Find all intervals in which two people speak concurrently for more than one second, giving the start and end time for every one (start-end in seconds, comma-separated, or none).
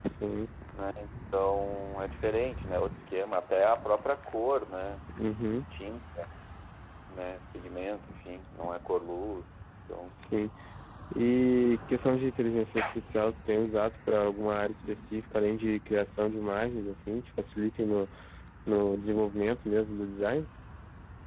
none